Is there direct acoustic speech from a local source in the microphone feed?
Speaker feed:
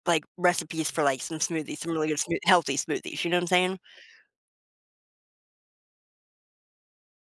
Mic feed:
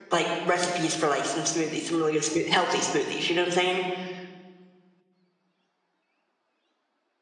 No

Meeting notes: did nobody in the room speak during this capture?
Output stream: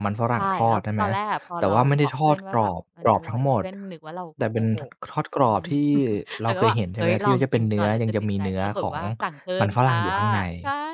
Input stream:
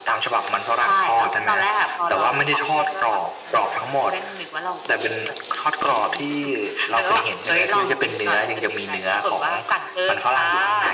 Yes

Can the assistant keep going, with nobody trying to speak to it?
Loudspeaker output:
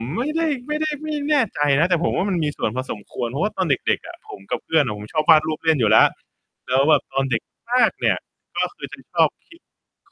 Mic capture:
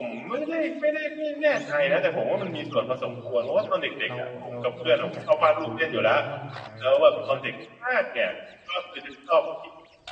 No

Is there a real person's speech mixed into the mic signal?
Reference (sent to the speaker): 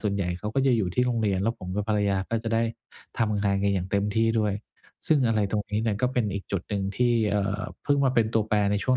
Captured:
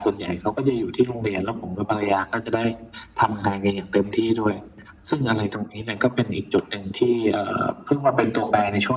No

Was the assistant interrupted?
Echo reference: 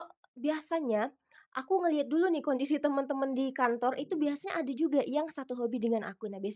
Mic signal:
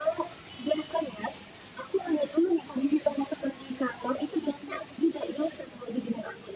No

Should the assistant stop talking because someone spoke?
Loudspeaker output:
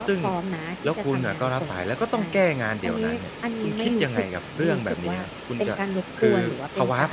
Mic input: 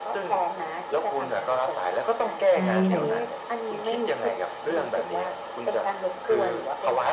Yes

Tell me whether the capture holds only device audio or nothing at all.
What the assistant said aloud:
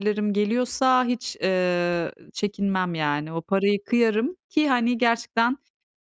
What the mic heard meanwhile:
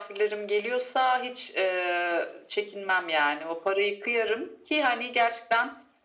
Yes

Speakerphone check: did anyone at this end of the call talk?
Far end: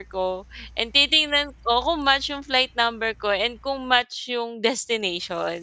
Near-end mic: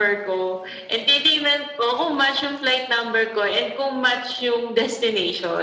No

